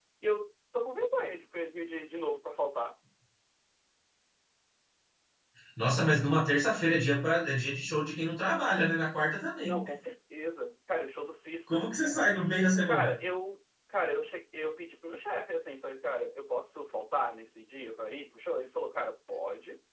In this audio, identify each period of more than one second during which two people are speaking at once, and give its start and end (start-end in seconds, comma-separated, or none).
none